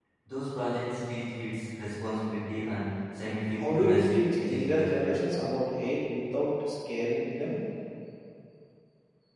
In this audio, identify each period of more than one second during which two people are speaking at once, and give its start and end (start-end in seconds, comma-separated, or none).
3.5-5.2